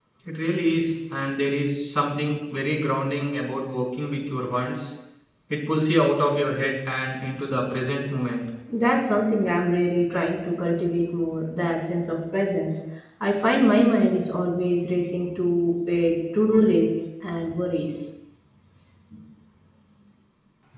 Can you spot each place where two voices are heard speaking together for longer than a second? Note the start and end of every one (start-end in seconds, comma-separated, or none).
none